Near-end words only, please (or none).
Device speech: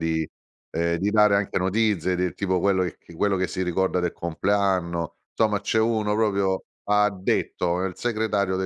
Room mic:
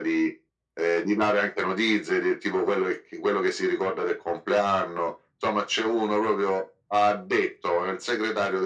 none